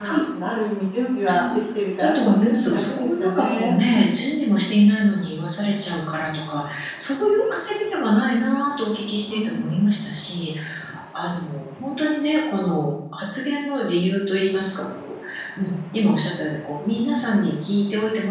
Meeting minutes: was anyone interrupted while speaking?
Yes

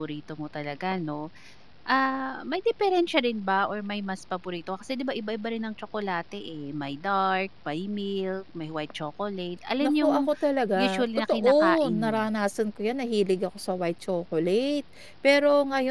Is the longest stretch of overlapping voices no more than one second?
No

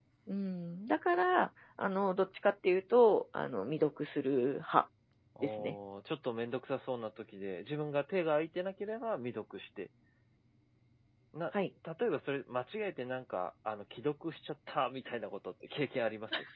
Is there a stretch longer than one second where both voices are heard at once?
No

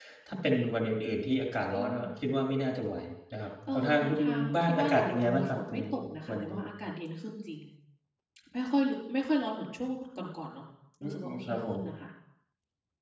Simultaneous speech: Yes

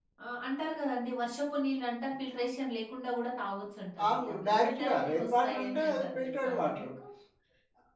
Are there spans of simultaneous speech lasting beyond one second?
Yes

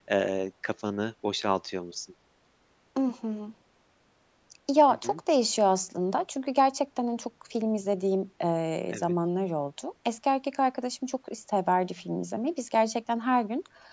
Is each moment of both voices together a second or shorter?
Yes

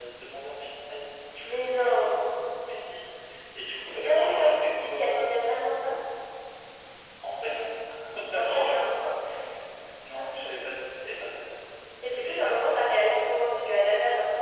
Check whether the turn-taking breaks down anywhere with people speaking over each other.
Yes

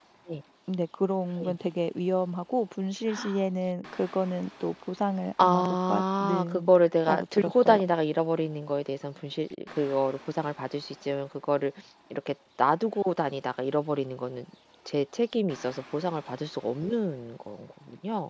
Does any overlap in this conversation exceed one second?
Yes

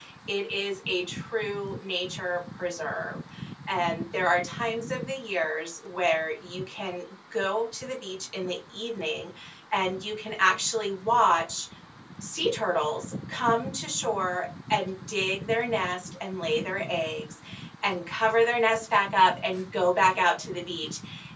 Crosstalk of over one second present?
No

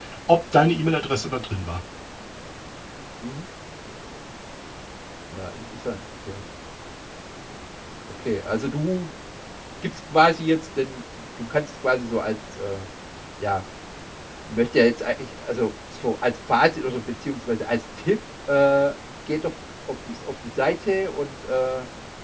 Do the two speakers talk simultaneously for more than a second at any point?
No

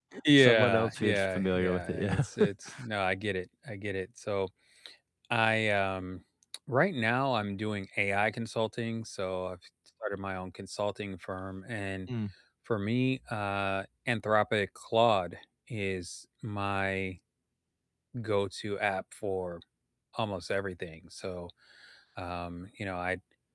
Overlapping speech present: Yes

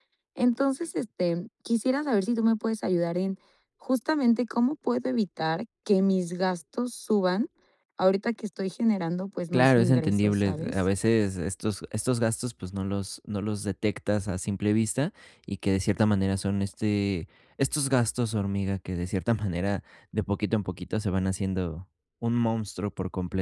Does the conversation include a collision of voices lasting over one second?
Yes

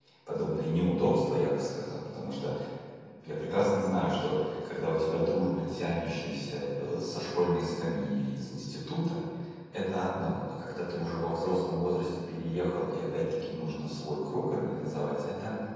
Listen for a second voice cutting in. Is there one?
No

